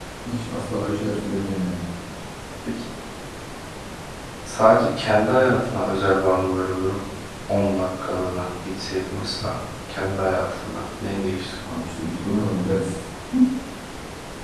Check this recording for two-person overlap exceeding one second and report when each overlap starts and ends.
none

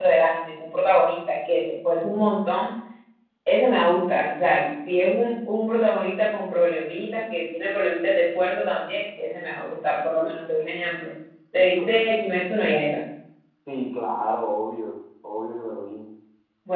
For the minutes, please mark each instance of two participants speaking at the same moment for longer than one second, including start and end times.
none

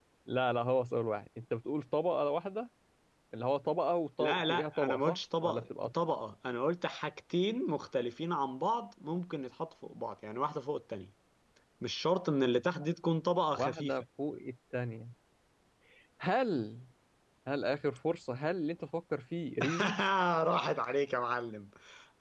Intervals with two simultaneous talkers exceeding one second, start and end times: 4.2-5.6

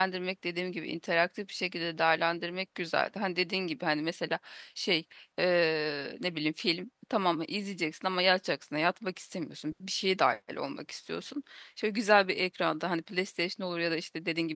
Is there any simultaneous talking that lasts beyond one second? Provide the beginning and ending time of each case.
none

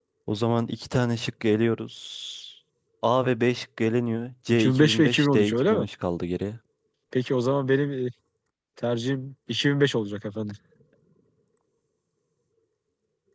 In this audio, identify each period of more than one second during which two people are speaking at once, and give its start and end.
4.5-5.8

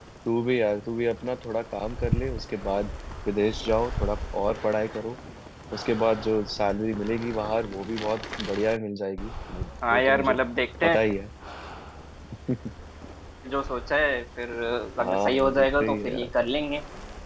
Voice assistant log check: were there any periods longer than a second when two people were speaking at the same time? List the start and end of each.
15.0-16.3

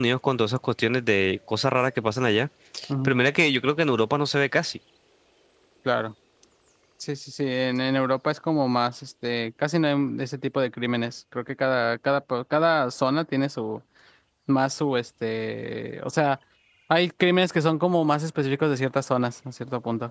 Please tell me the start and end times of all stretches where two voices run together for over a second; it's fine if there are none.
none

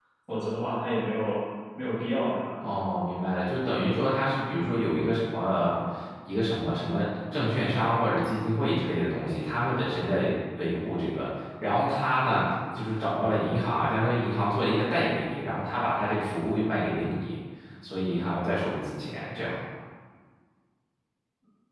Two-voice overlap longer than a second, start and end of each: none

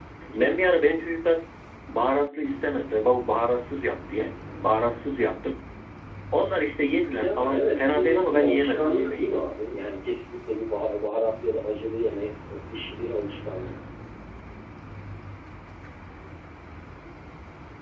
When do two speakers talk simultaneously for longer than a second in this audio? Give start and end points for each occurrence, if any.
7.1-9.3

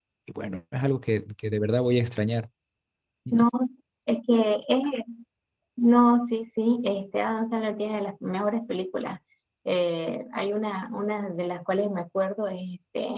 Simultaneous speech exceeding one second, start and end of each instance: none

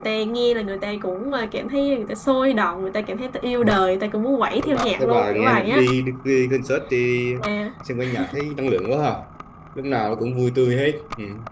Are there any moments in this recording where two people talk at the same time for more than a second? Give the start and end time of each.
4.6-5.9

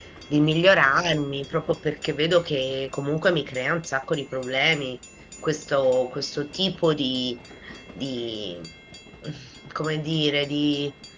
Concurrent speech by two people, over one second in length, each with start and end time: none

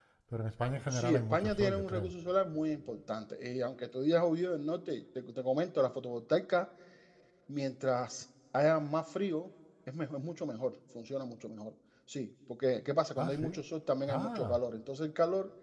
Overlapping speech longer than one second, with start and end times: 0.9-2.1

